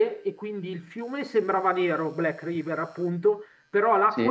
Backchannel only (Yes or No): Yes